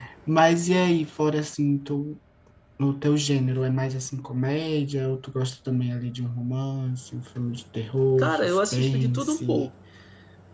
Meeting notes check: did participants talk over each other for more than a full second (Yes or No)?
Yes